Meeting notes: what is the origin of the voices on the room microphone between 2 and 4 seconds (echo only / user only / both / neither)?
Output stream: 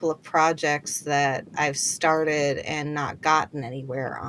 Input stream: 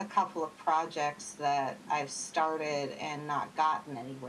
echo only